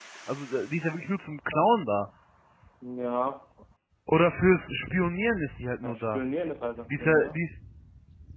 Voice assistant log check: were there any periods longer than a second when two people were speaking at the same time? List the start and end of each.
none

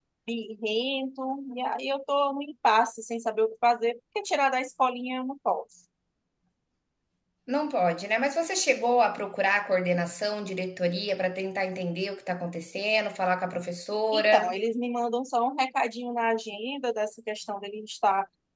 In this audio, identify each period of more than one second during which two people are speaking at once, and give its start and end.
none

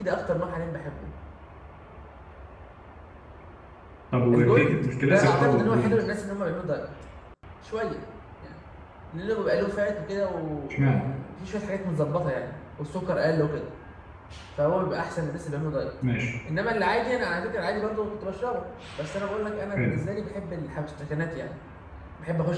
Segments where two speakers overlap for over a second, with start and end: 4.3-6.0

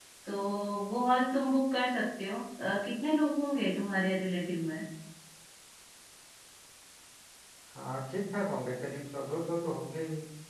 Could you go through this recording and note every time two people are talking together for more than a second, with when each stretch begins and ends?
none

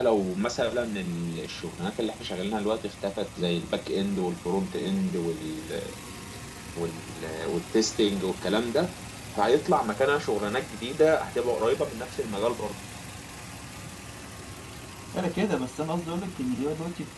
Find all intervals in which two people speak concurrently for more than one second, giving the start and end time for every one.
none

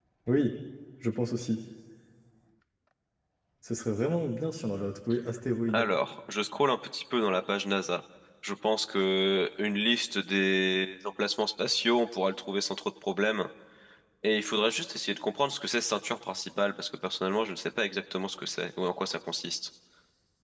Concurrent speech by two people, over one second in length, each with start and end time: none

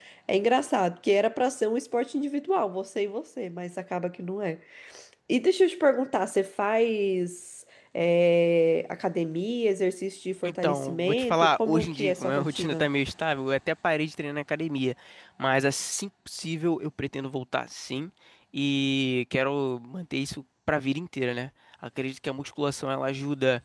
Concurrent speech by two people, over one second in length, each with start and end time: 10.5-12.9

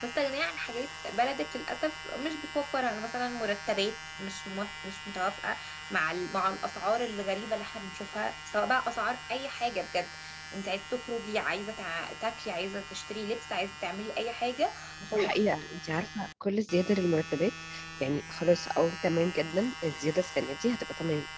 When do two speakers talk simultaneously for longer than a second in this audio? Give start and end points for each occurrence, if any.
none

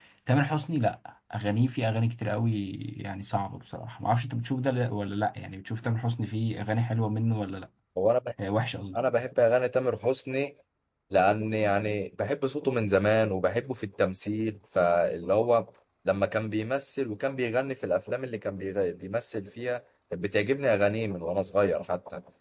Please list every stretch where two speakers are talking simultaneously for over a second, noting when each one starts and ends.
none

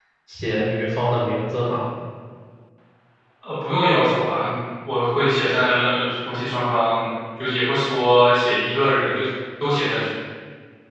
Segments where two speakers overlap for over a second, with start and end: none

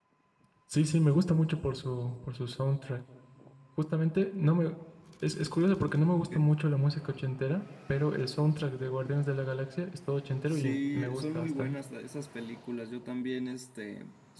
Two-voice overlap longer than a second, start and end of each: 10.5-11.7

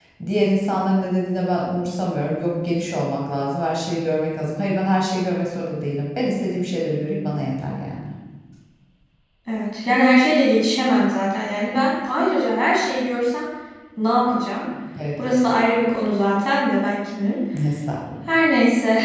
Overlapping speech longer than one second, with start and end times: none

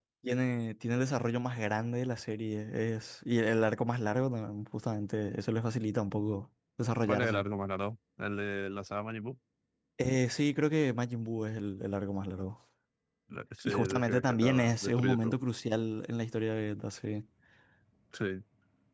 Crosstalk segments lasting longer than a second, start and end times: 13.6-15.4

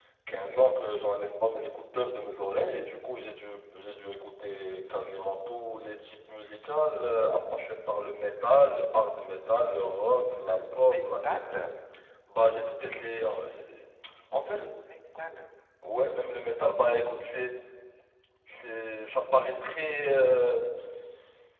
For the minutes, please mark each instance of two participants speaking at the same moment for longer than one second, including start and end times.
10.5-11.7

